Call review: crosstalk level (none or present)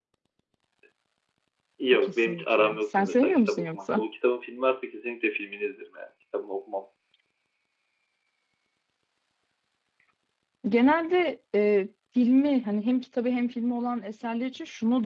present